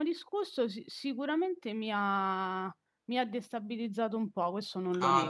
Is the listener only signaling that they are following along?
No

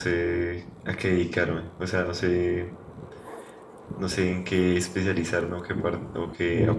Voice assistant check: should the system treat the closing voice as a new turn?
Yes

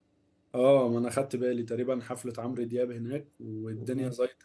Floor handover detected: No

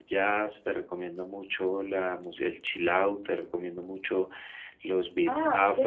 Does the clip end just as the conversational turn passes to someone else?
Yes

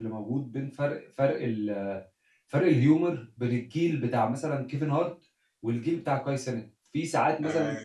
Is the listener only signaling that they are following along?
Yes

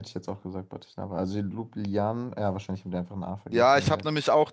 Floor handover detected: Yes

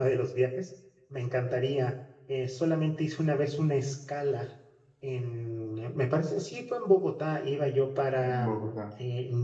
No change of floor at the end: Yes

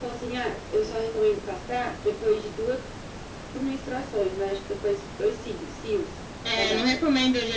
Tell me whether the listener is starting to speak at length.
Yes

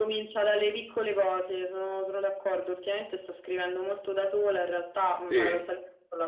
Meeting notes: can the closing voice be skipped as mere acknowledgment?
Yes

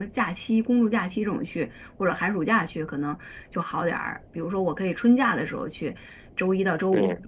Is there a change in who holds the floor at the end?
No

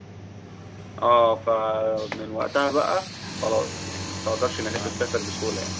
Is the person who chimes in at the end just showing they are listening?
Yes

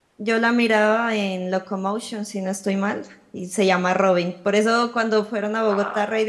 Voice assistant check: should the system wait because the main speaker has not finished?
Yes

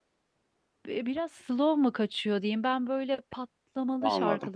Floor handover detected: No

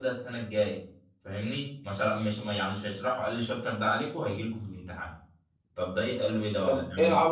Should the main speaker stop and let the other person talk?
Yes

